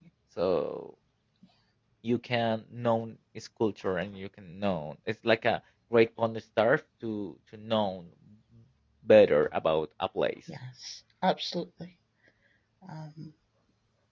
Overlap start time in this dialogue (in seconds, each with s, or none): none